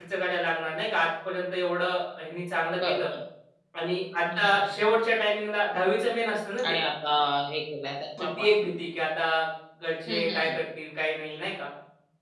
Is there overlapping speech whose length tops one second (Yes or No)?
No